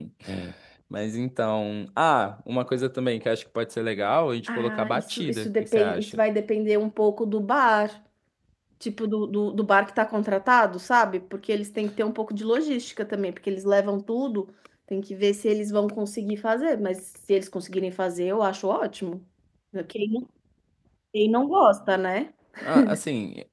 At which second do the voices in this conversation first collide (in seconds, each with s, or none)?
4.5 s